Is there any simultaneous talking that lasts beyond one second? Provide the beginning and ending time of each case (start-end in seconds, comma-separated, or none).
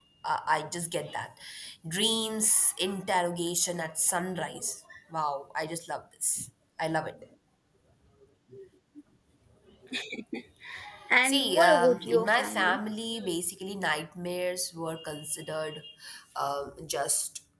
11.2-12.8